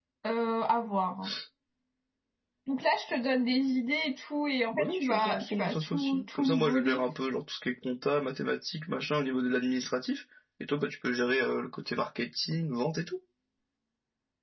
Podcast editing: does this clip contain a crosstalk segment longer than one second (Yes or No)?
Yes